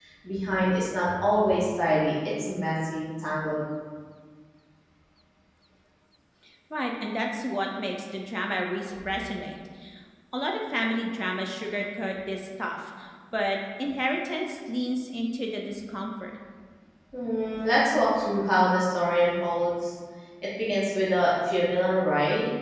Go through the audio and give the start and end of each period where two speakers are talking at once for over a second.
none

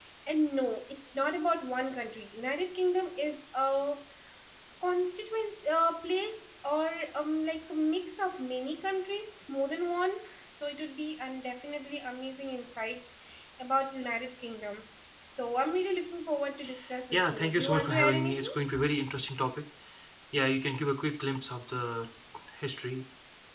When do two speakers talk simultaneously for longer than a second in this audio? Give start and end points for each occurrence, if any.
17.1-18.5

